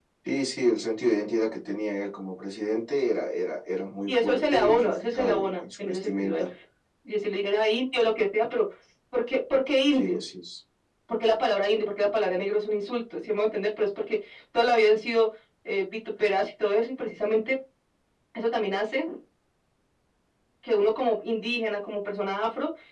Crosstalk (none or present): present